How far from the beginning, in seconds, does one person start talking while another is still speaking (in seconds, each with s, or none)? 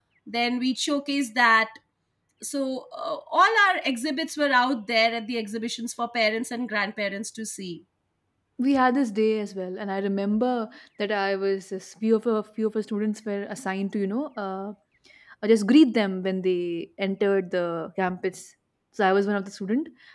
none